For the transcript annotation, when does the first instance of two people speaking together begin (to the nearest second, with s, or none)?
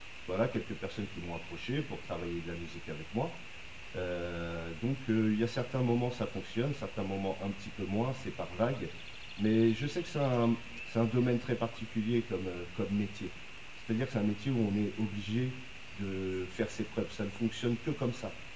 none